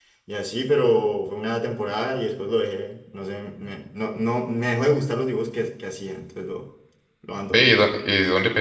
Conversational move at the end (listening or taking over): taking over